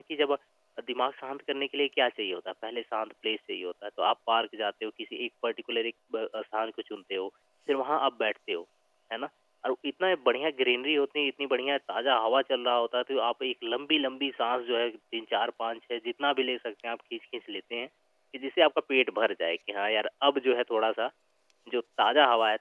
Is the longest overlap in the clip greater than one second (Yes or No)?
No